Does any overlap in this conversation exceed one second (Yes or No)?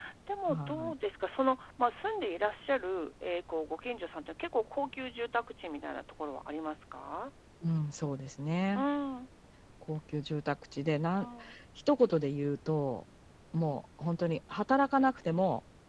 No